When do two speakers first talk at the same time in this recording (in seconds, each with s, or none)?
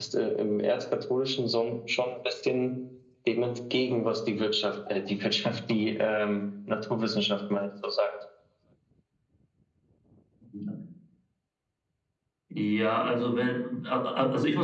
none